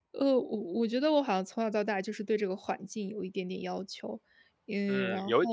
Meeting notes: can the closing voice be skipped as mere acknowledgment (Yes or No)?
No